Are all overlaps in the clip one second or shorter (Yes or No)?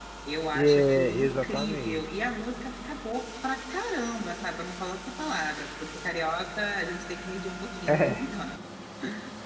No